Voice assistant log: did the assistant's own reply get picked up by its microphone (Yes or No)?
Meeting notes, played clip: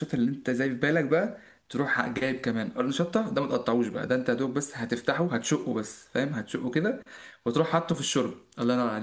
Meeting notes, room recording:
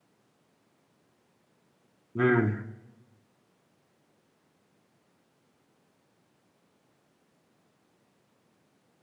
No